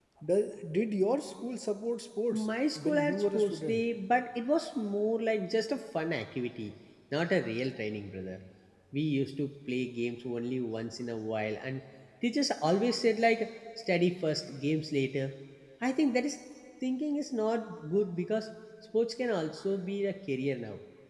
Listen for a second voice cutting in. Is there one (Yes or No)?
Yes